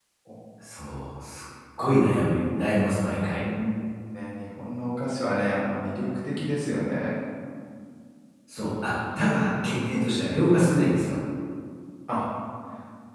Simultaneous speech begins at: none

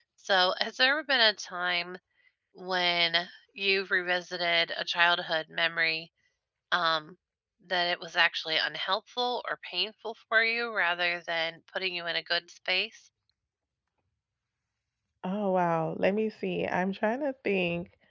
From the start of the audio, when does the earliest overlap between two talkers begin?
none

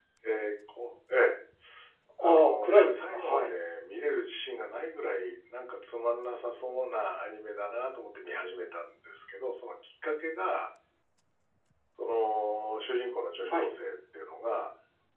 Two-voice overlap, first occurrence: 2 s

